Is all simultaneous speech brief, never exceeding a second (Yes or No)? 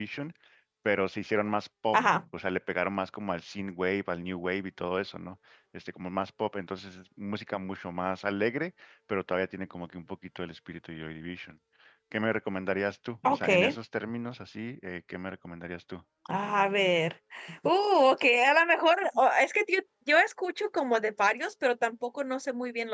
Yes